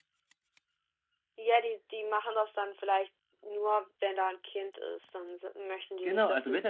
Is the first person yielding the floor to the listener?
Yes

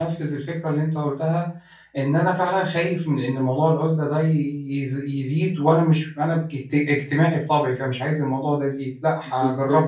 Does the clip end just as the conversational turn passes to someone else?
Yes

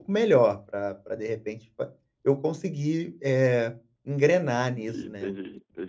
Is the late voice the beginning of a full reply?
Yes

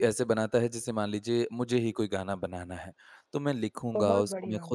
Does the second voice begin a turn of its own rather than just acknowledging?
No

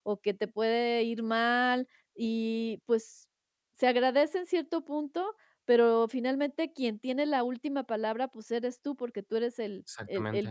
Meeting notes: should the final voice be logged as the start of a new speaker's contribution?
No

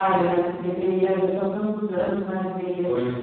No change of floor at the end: Yes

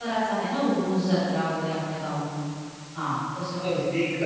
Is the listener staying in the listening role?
No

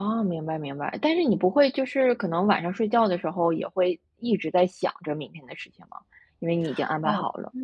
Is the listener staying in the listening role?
No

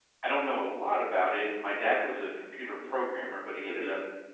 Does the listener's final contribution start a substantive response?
No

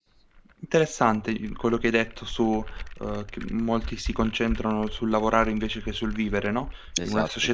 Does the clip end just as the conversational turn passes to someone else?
No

